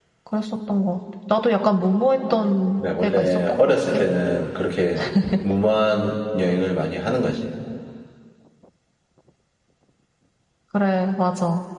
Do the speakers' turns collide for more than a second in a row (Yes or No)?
Yes